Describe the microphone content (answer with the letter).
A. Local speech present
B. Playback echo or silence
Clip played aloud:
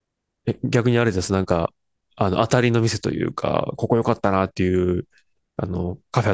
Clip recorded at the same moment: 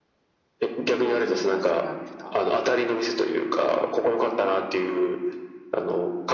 A